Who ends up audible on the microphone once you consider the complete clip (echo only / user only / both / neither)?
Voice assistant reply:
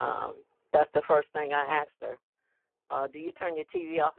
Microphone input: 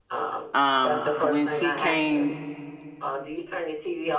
both